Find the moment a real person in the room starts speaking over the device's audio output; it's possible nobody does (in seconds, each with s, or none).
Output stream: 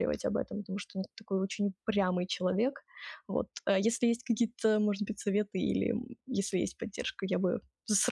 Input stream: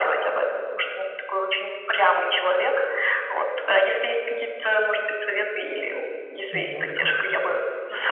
6.5 s